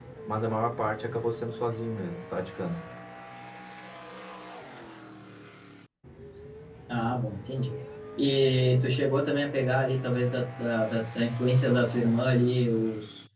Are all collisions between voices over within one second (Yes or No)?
Yes